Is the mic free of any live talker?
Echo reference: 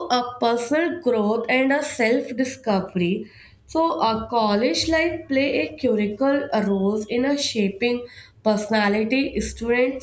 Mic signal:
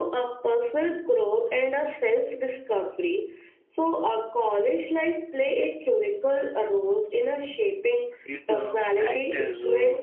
No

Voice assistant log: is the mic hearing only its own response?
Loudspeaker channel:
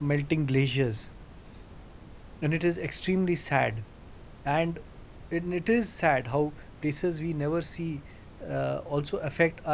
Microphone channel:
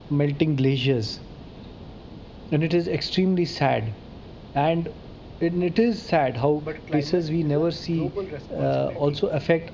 No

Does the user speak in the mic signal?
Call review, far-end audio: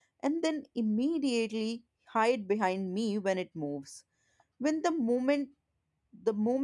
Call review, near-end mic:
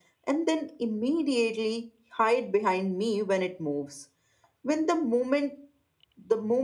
No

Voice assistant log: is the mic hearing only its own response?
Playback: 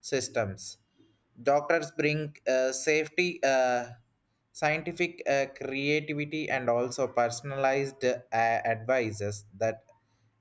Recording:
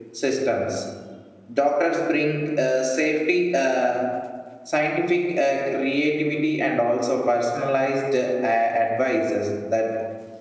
Yes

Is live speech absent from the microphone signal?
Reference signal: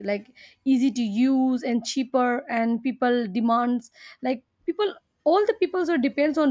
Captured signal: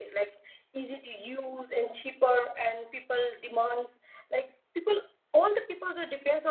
Yes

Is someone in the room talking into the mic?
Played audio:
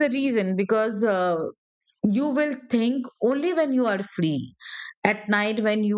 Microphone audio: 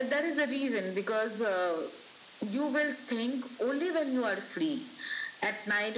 No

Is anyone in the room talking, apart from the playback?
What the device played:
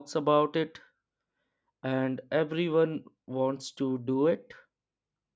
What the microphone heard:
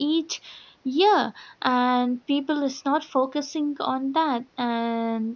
Yes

